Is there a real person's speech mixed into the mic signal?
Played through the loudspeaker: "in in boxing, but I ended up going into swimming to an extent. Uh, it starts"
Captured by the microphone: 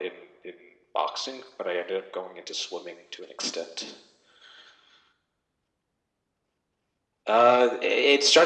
No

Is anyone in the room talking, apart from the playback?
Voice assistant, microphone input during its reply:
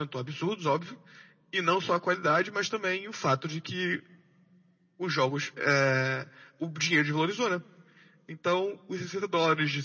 No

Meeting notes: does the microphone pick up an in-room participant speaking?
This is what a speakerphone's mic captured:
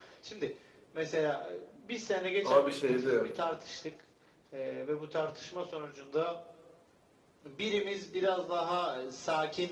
Yes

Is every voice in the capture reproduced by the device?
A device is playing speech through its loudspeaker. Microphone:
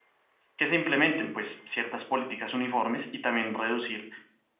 No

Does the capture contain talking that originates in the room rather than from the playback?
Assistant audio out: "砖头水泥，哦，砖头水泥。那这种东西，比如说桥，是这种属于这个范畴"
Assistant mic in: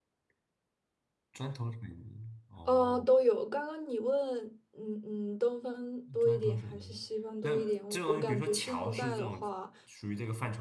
Yes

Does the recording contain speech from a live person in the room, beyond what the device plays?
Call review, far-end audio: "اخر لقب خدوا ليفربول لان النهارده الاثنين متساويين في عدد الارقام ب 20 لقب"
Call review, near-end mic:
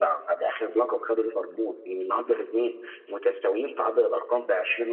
No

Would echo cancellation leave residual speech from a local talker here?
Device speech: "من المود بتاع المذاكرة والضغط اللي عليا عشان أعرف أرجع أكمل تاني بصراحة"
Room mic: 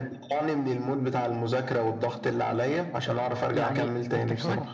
Yes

